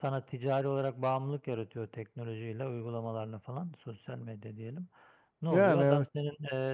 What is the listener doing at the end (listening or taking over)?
listening